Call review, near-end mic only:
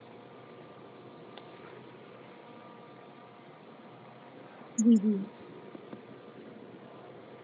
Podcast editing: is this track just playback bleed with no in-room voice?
No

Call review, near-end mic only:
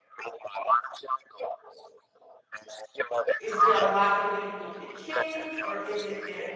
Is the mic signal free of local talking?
No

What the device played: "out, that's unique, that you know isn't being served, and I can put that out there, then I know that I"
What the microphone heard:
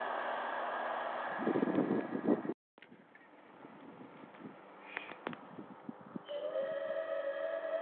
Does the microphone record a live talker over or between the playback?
No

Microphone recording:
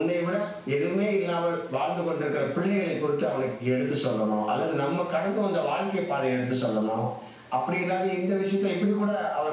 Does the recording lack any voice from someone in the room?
Yes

